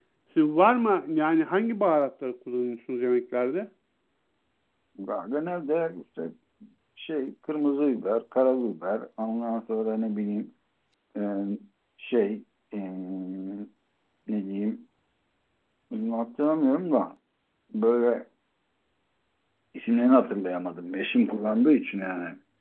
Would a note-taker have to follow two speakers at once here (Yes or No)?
No